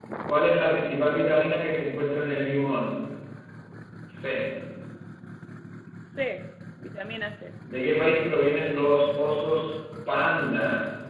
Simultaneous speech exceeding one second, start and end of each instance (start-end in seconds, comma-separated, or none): none